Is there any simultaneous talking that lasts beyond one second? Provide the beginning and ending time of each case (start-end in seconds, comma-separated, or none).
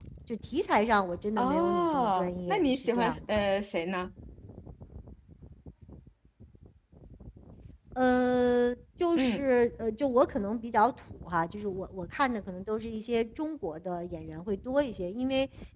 1.4-3.4